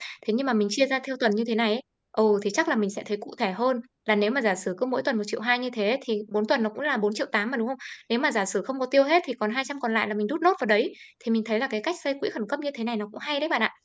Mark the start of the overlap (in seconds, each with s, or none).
none